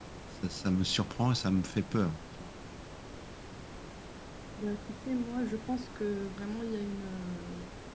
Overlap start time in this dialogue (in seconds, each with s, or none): none